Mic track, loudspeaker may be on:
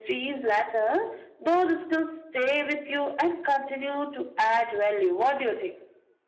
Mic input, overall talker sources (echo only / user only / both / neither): echo only